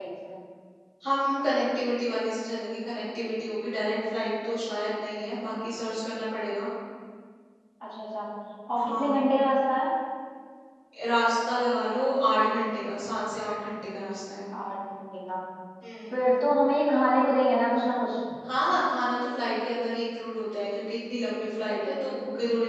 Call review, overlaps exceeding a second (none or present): none